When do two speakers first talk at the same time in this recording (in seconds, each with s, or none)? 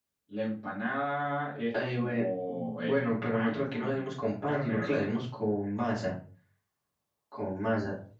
1.7 s